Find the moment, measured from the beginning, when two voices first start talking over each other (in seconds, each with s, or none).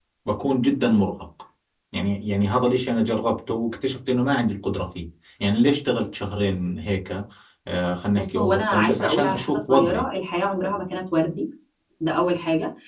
8.2 s